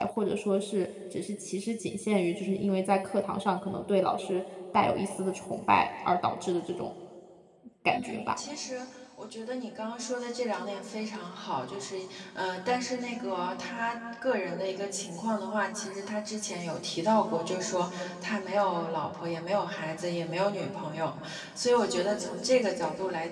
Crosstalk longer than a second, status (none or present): none